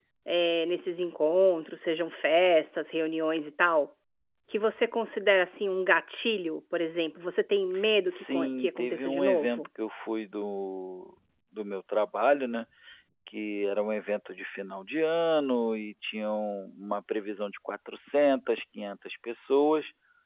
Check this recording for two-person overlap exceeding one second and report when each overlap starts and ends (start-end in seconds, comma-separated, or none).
8.1-9.7